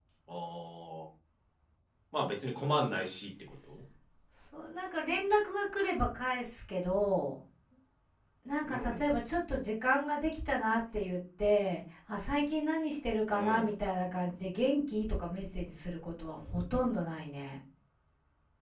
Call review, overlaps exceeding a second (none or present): none